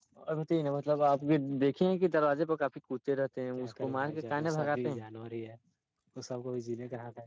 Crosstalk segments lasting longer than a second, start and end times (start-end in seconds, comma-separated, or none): 3.6-5.0